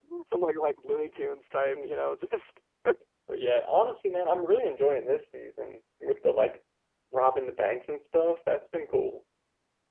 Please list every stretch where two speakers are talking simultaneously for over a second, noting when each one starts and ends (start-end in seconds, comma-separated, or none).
none